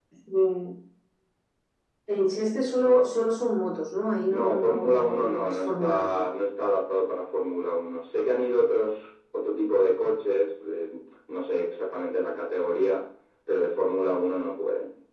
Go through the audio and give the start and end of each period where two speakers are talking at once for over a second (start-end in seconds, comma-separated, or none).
4.4-6.3